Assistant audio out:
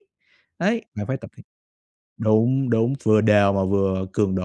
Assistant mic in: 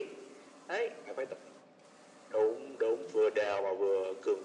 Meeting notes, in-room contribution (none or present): none